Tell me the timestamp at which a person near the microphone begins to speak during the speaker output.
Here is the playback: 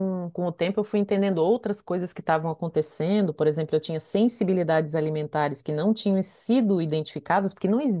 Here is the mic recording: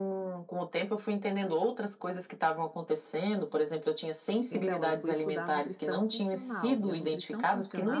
4.5 s

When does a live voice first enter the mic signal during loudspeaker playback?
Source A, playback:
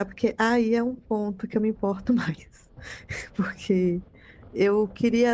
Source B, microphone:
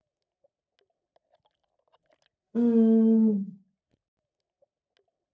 2.5 s

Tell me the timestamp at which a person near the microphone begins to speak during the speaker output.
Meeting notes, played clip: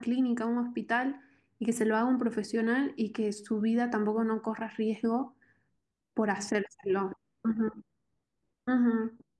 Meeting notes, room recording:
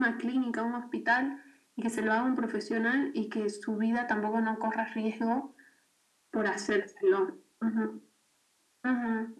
none

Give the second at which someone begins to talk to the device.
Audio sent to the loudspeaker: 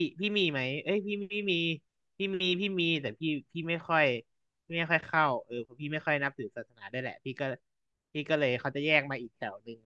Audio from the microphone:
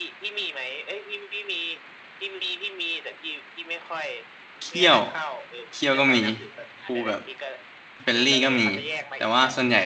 4.6 s

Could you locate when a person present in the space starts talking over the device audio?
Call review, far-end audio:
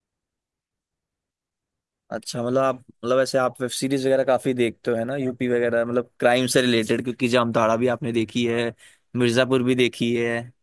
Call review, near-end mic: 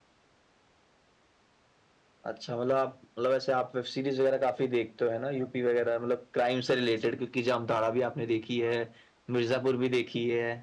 none

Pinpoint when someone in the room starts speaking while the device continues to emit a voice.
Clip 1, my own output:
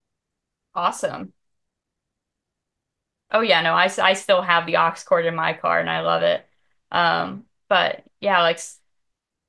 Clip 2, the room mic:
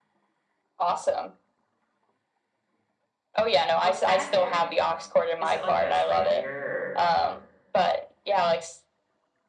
3.8 s

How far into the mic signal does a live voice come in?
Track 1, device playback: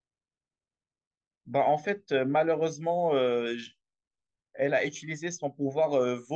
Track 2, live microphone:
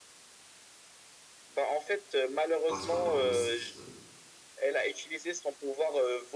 2.6 s

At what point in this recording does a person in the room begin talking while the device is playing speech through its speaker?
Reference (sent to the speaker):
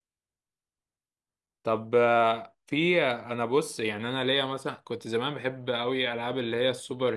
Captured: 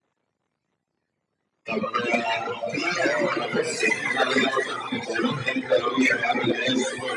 2.9 s

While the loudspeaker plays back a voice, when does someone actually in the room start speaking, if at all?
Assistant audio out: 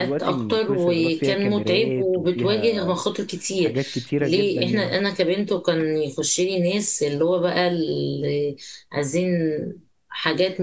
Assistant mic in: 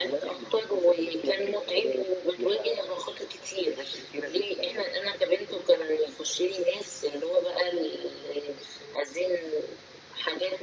none

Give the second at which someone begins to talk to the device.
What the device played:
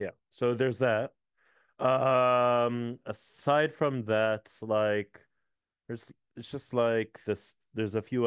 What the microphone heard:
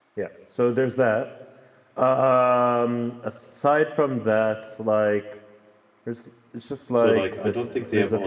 7.0 s

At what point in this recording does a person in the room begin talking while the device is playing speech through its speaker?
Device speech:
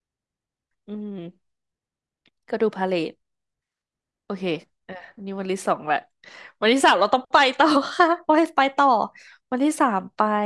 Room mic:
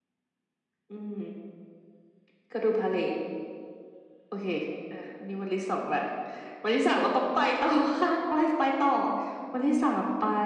none

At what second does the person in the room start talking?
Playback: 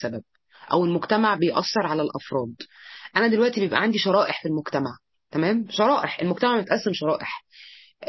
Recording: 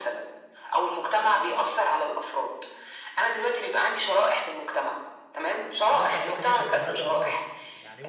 5.9 s

